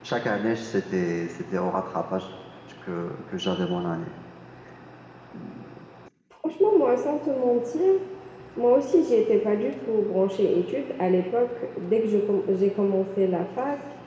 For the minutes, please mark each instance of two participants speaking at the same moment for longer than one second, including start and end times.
none

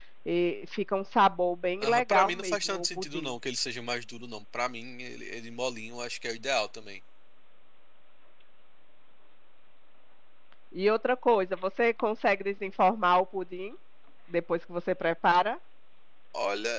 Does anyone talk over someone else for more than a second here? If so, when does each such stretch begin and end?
1.8-3.3

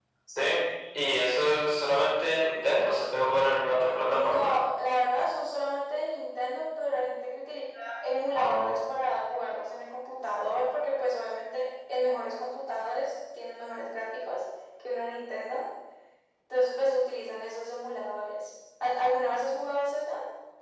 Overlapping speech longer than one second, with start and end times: none

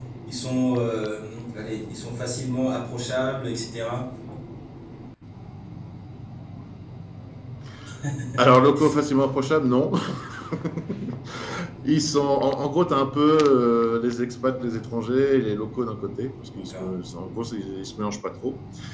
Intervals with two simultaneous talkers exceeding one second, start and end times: none

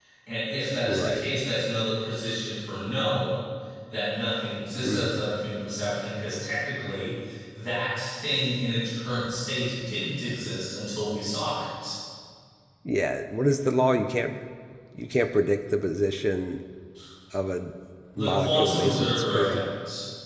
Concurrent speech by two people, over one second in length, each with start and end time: 18.2-19.6

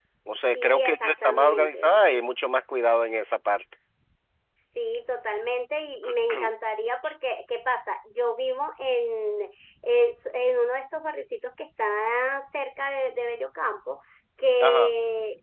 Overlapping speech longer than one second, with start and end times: 0.6-1.9

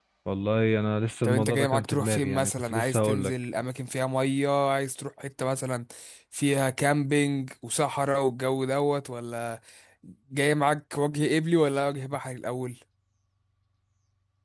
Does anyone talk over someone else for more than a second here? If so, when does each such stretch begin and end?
1.2-3.3

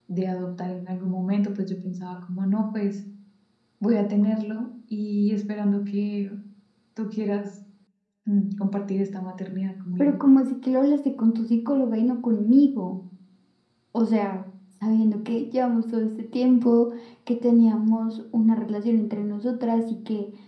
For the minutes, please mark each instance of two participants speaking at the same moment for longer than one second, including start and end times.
none

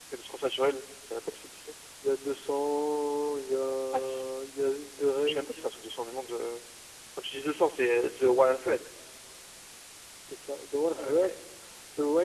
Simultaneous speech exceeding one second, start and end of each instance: none

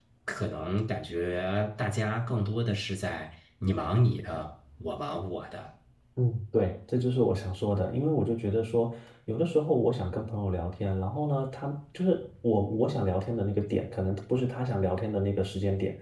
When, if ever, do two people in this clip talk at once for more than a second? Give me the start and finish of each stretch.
none

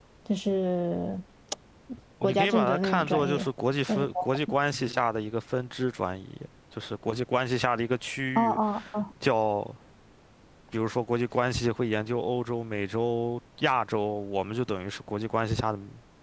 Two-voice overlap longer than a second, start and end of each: 2.2-3.5

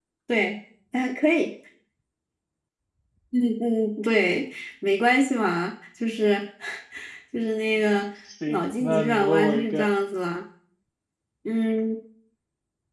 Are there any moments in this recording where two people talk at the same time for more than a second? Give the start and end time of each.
8.5-9.9

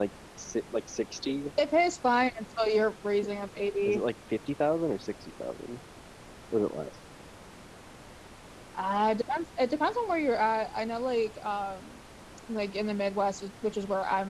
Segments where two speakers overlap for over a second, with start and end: none

